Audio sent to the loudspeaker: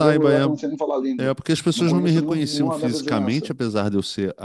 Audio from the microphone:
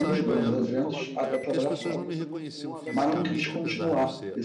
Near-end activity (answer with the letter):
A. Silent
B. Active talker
B